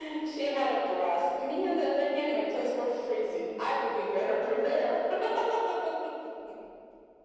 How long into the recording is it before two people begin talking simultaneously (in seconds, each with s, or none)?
none